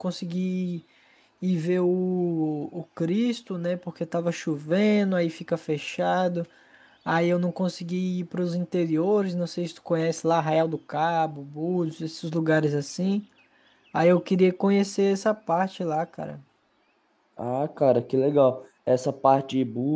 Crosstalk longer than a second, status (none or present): none